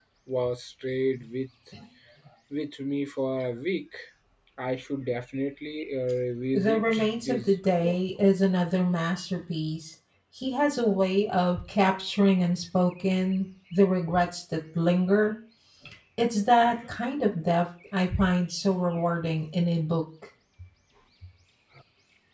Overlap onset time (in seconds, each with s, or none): 6.5 s